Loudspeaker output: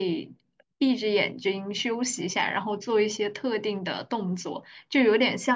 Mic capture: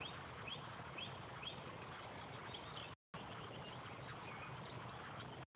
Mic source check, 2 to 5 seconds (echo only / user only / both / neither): neither